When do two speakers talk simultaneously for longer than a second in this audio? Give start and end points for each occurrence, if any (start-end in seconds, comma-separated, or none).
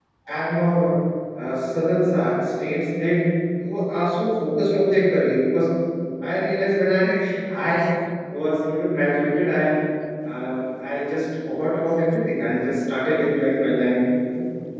none